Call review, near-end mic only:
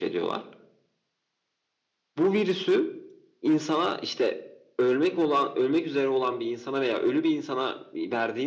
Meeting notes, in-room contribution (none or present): none